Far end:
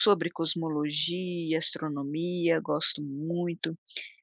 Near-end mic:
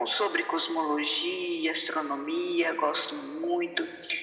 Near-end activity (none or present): none